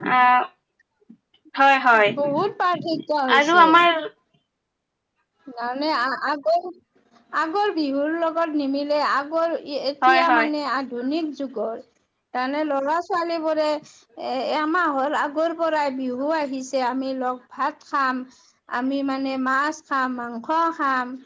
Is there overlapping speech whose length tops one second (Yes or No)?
No